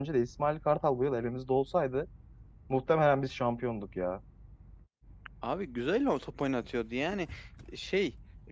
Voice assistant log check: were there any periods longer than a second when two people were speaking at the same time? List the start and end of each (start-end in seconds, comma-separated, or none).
none